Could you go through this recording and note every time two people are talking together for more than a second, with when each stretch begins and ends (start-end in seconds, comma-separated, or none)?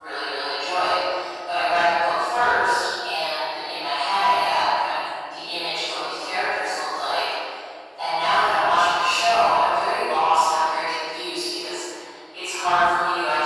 none